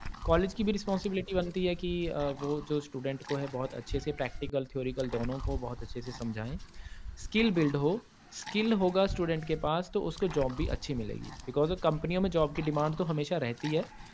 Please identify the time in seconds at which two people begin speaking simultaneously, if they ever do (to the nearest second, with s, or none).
none